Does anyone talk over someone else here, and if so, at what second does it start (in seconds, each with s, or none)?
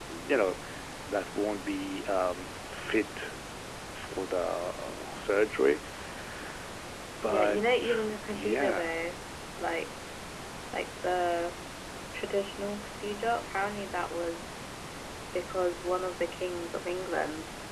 7.3 s